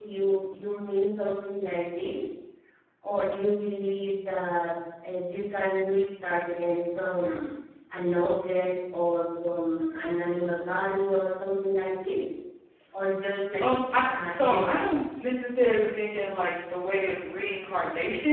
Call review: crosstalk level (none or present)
present